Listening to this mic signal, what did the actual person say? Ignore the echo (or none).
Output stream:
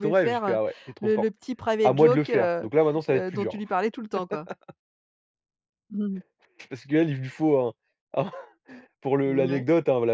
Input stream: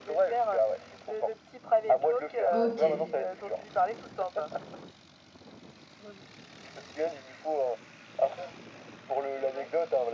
OK.